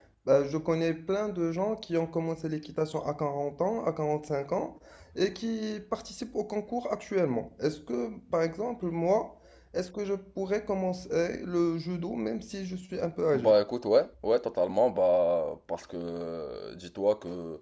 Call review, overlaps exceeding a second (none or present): none